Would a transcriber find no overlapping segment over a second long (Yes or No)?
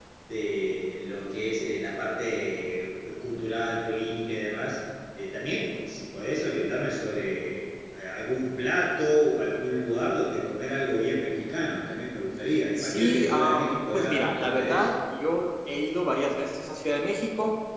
No